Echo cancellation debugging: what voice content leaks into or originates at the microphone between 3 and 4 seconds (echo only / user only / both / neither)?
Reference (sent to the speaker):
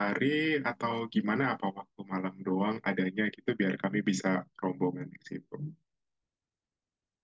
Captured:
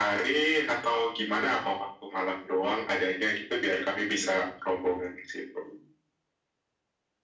echo only